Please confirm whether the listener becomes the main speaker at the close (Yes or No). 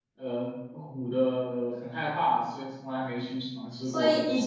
Yes